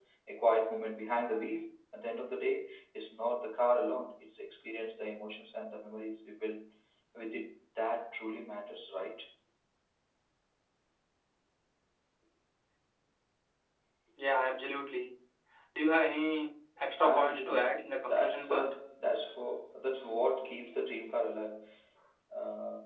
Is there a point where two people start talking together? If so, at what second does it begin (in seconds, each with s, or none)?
17.0 s